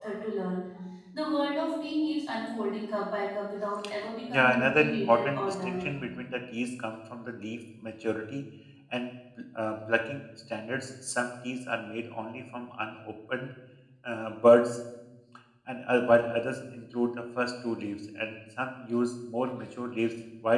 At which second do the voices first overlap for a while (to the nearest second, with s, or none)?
4 s